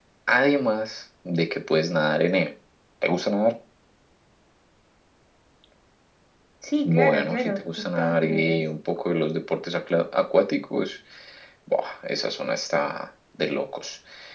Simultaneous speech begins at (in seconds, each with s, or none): 6.8 s